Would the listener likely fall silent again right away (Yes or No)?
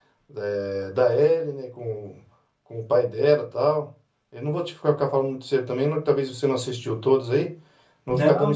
No